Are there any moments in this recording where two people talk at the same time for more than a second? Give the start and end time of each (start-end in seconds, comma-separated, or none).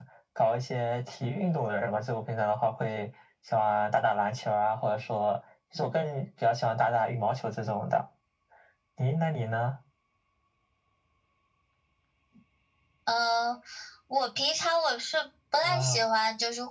none